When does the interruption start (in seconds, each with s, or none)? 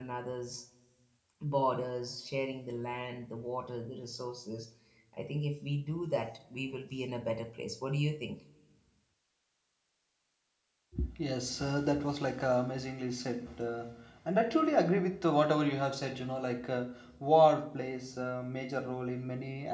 none